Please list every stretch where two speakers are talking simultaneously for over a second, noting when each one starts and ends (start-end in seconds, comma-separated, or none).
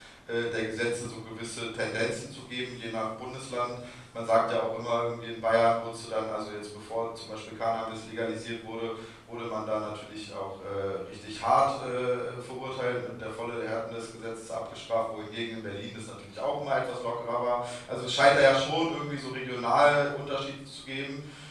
none